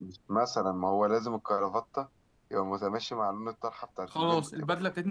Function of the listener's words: taking over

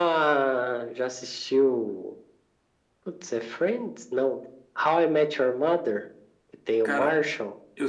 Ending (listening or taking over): taking over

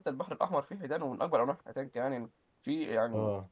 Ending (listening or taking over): listening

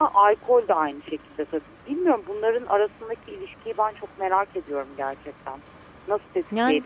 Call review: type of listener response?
listening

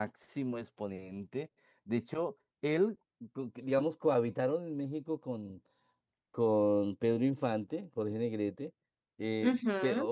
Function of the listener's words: listening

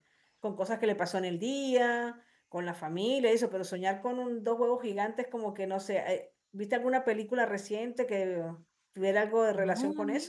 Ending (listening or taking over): taking over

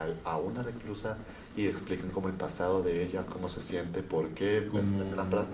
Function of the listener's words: listening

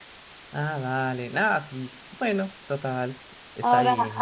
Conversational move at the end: taking over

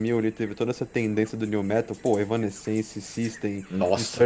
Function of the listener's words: listening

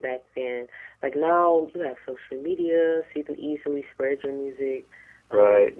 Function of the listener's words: listening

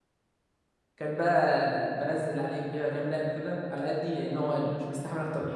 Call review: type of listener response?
taking over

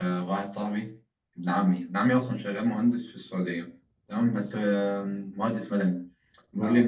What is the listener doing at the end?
listening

